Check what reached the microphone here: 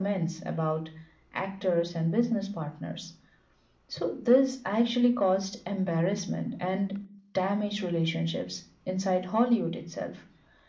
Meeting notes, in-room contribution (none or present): none